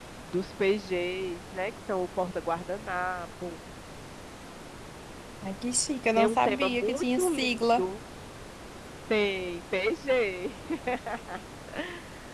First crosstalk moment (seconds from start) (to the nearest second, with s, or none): 6 s